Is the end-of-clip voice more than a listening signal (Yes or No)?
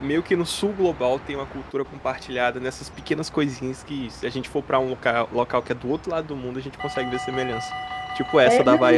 Yes